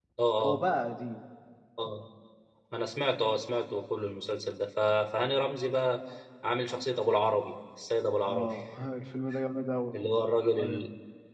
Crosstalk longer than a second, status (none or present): none